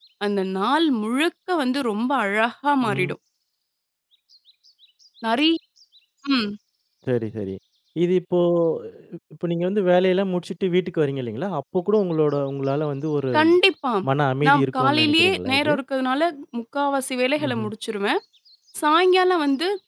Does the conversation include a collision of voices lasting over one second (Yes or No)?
Yes